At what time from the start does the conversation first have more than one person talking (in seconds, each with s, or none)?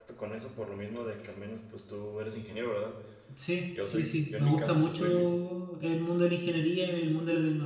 3.9 s